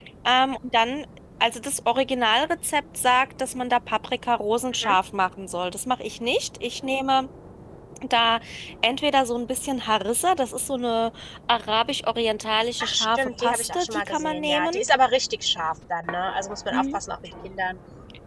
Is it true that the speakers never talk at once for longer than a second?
No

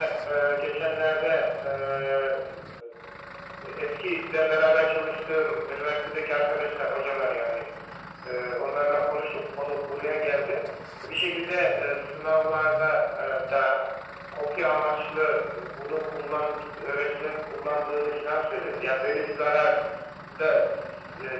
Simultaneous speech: No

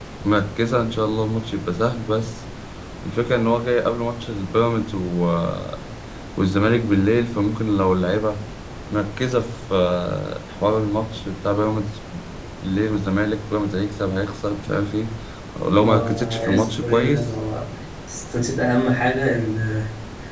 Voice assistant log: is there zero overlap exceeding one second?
No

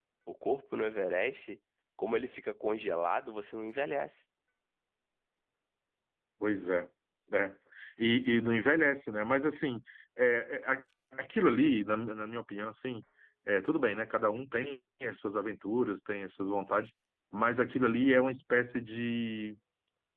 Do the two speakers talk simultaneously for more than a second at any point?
No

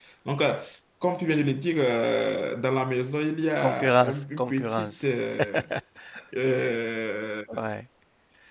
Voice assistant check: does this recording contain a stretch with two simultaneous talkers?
Yes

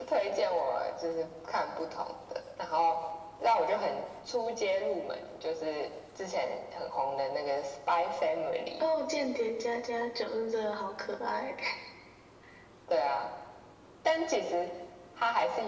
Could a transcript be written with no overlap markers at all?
Yes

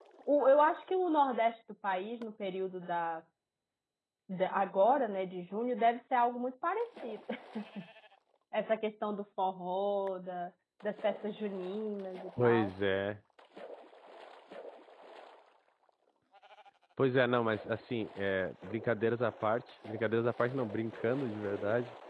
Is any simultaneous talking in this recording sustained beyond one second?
No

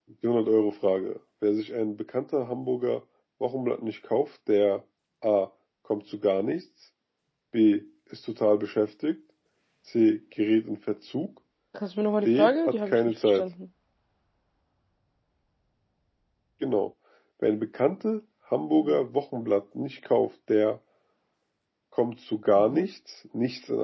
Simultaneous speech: Yes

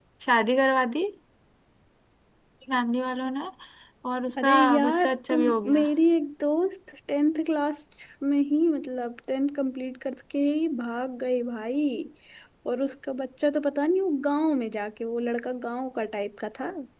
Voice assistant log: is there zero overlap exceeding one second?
No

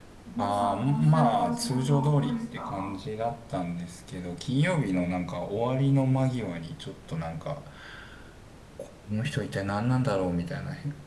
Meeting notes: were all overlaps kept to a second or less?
No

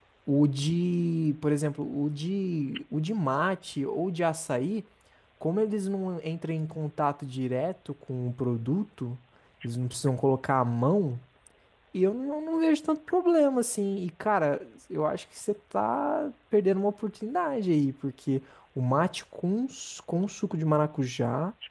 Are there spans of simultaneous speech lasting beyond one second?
No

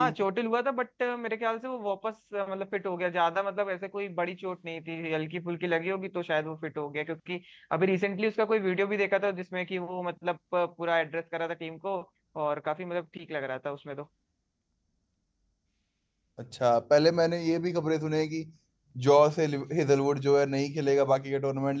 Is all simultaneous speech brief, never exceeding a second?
Yes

